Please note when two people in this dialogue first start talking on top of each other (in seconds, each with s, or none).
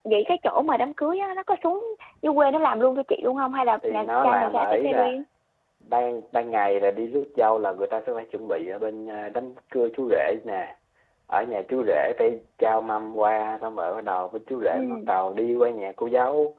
3.9 s